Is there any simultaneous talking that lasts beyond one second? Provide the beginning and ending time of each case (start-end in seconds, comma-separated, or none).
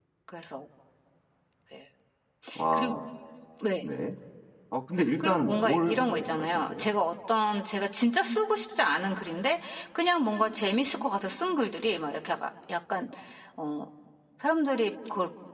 5.2-6.9